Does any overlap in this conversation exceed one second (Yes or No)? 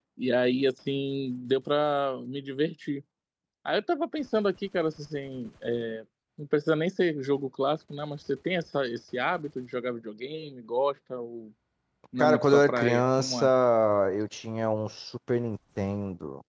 Yes